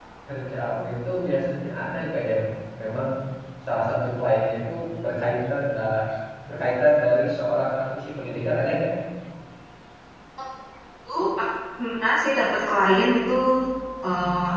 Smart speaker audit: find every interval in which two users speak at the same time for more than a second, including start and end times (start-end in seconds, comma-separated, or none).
none